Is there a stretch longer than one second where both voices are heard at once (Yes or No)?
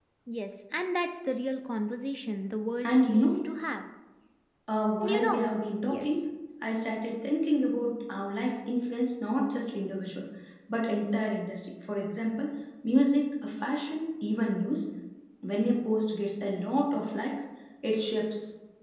No